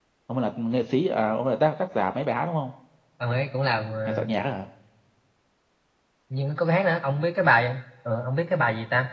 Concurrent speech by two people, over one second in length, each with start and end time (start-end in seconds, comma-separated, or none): none